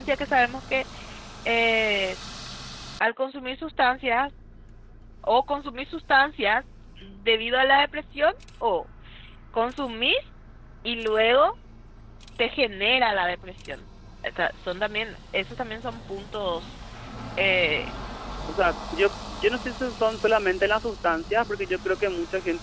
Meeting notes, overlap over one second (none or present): none